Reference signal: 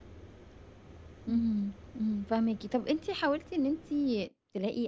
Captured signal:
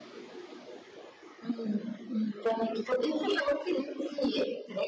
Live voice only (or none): none